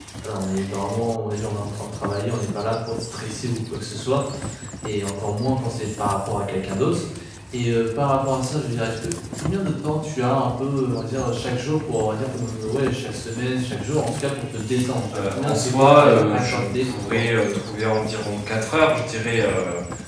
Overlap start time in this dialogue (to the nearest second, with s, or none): 15 s